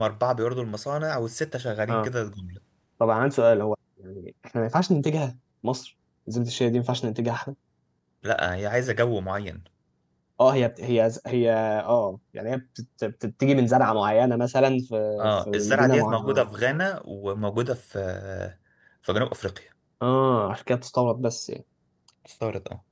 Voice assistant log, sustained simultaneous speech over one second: present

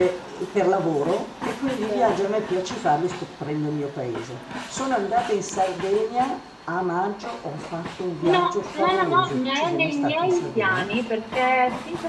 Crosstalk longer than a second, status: present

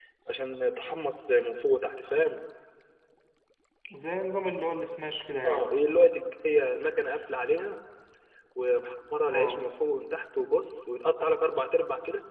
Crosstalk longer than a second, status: none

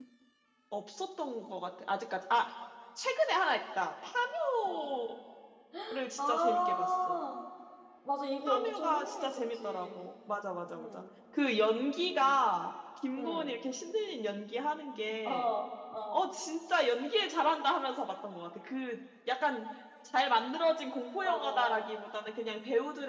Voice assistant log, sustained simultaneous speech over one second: present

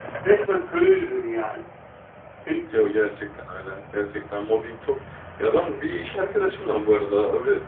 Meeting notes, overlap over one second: none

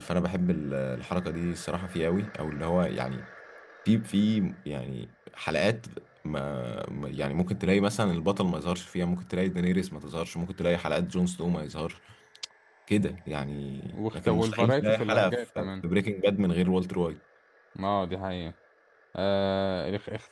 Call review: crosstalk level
present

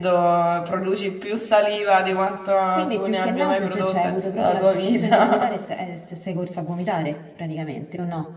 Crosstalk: present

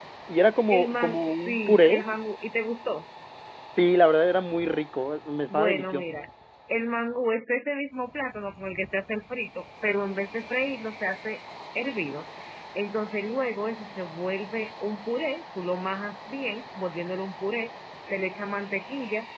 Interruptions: present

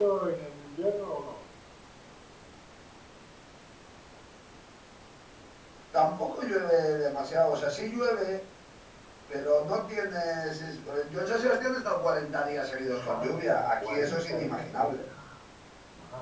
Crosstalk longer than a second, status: present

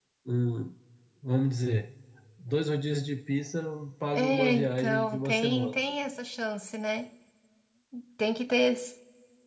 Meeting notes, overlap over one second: present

